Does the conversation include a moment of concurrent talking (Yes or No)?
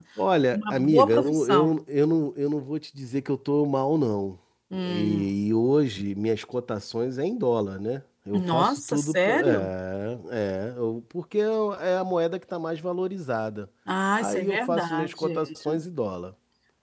Yes